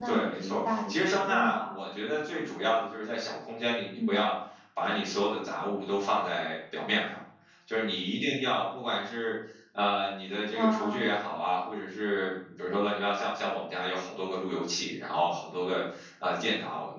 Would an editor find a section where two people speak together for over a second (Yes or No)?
Yes